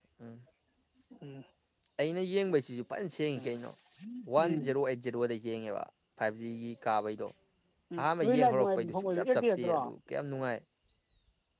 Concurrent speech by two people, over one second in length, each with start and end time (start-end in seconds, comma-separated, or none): 8.0-9.9